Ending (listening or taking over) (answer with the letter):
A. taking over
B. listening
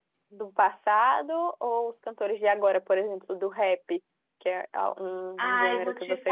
A